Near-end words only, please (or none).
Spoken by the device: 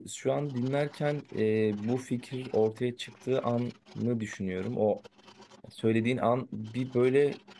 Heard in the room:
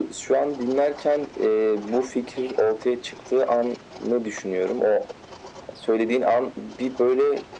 none